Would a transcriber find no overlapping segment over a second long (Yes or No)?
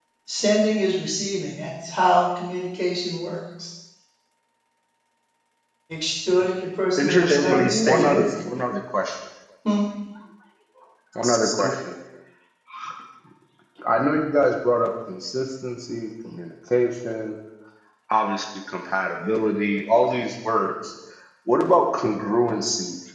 No